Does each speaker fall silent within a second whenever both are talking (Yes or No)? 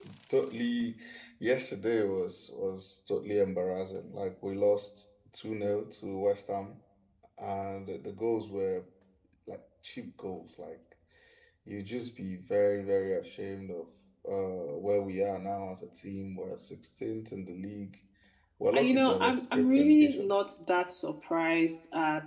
No